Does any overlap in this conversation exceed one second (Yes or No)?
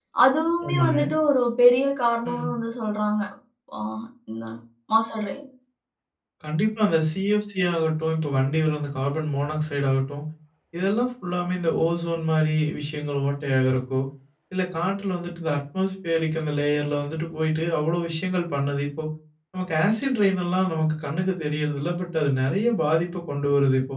No